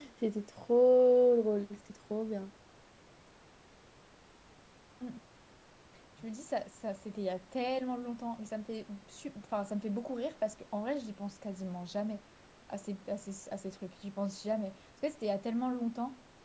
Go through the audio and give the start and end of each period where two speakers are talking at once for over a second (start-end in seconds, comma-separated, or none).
none